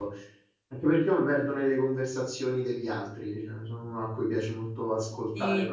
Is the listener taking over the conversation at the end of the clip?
Yes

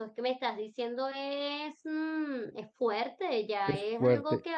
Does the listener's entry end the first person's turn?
No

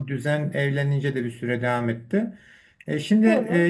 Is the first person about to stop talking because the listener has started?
No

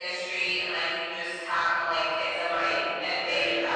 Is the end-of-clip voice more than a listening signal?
Yes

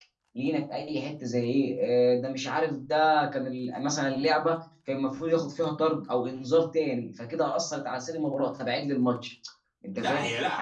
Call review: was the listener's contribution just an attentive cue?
No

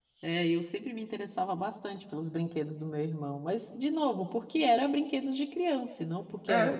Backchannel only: Yes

